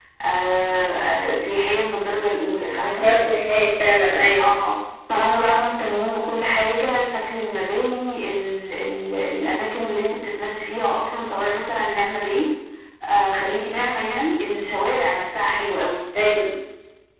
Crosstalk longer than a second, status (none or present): none